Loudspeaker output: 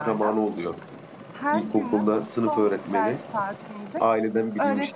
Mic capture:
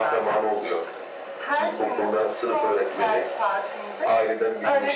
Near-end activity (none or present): none